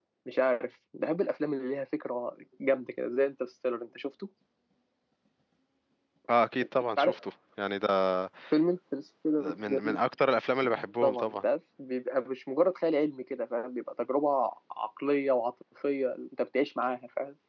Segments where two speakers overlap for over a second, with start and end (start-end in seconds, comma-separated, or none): none